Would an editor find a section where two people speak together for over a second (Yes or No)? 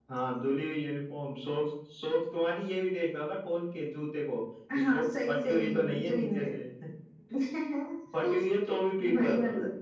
Yes